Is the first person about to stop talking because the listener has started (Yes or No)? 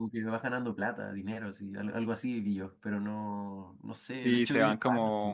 Yes